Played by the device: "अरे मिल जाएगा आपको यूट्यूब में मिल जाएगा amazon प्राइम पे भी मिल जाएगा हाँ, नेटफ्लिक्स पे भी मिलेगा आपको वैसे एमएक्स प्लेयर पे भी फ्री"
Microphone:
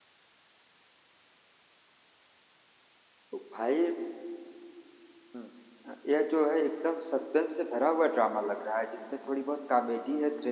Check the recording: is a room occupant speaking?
Yes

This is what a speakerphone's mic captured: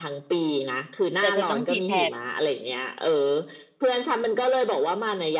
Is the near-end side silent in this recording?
No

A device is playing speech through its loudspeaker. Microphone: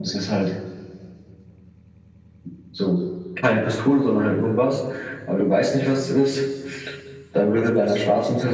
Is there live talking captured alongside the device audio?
Yes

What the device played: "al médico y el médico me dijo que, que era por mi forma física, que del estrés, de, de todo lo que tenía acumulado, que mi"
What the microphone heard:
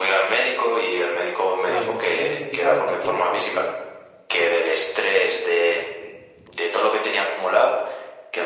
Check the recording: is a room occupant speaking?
Yes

